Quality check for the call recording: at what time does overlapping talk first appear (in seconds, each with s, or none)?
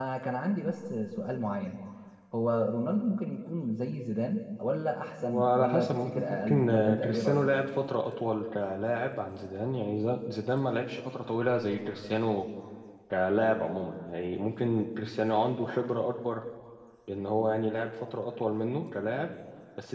5.2 s